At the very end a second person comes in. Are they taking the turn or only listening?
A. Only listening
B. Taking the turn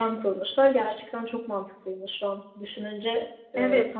B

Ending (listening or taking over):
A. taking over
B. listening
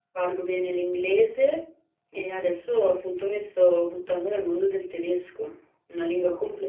B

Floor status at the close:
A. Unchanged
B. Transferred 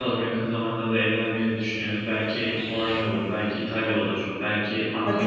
B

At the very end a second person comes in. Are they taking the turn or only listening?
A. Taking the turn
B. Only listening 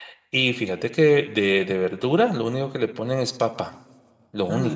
B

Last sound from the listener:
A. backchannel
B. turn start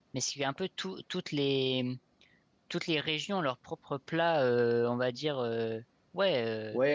B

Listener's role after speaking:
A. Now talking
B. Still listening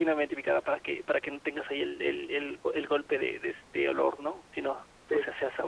B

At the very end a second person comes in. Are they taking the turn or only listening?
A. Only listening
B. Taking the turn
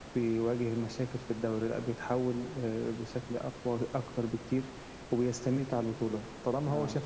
A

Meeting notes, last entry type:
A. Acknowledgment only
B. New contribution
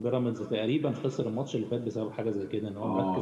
B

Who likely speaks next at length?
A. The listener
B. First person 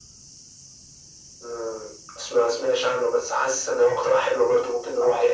A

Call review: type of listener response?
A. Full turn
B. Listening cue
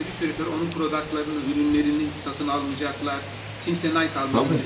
B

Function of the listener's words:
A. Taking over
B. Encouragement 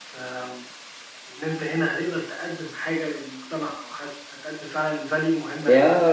A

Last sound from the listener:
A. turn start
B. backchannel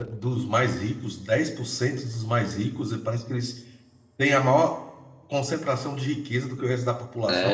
A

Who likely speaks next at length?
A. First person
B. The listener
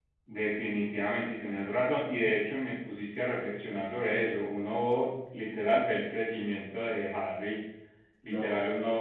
A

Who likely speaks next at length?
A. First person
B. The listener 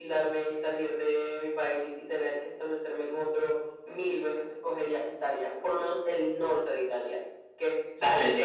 B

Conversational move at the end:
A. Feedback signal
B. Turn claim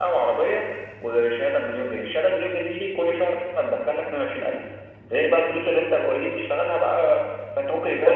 B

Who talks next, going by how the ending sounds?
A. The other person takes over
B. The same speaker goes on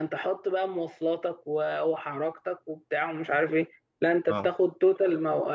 B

